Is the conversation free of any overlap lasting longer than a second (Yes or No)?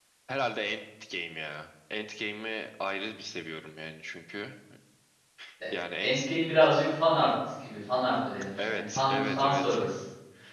No